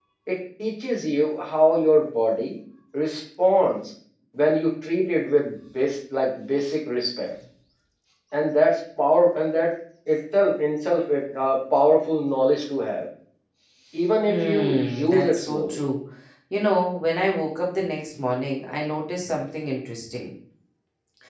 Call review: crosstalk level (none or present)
present